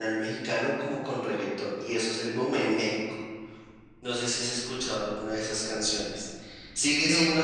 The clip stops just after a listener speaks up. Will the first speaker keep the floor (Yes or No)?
Yes